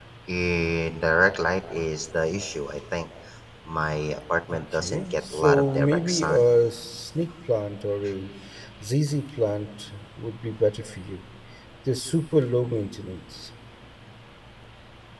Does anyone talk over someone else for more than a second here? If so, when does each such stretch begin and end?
4.7-6.5

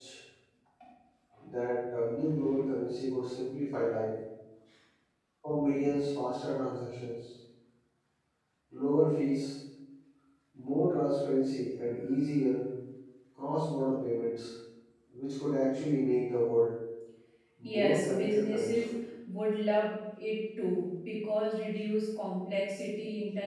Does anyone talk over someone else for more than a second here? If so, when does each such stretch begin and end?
17.6-19.0

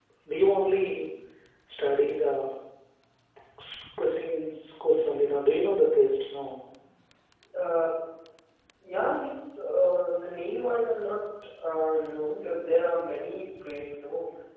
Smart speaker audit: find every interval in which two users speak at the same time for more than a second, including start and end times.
none

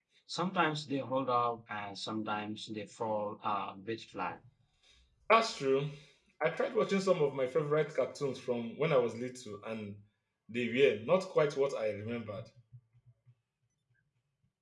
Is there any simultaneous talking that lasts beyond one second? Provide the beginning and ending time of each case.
none

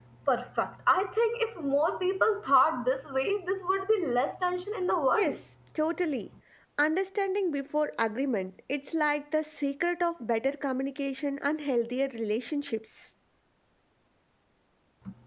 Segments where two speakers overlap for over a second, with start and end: none

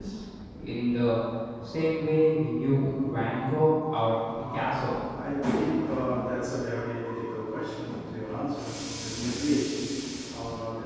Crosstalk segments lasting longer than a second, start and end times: none

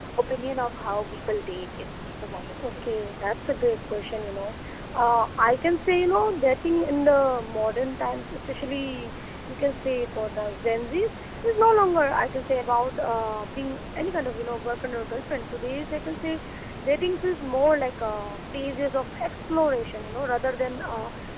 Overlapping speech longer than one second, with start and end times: none

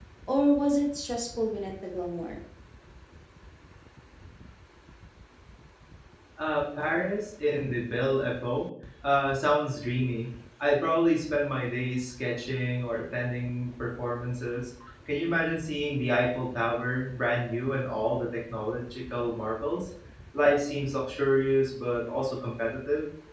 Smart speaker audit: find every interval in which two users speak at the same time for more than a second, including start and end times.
none

